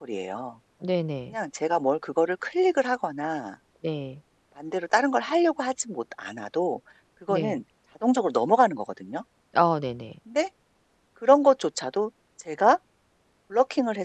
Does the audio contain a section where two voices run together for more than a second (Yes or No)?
No